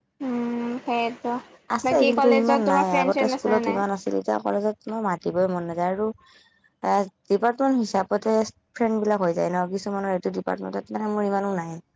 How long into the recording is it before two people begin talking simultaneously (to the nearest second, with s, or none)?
2 s